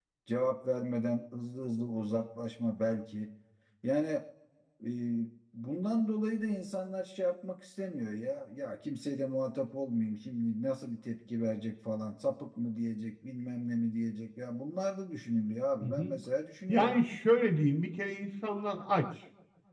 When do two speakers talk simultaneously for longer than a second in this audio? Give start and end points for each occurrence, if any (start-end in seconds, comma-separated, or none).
none